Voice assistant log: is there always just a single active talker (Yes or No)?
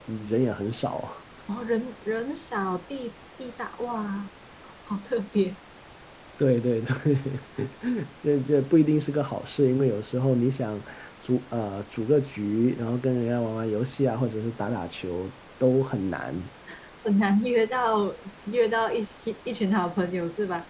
Yes